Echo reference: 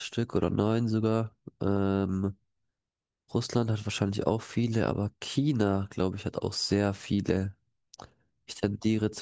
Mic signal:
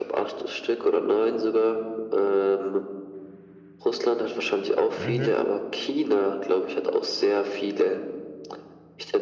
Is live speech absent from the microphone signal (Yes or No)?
No